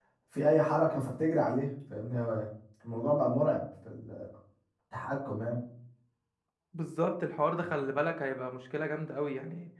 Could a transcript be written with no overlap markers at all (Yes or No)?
Yes